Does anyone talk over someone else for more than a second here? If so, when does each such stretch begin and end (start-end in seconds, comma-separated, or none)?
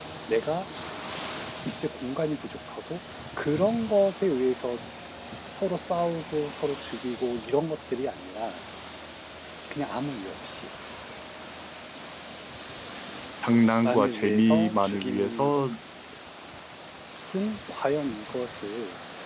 13.8-15.5